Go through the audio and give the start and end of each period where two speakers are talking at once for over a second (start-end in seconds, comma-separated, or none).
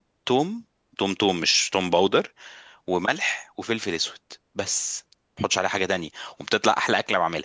none